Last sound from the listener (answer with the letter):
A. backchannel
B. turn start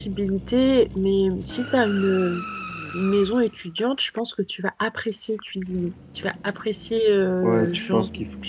B